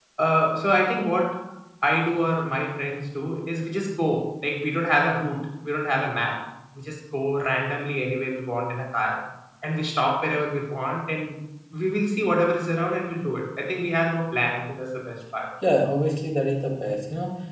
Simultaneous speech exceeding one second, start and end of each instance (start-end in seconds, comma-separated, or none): none